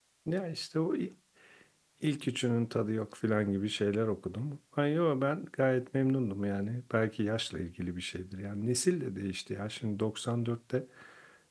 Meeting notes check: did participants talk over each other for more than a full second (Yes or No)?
No